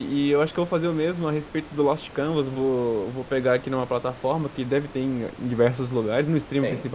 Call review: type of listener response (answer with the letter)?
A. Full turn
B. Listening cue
B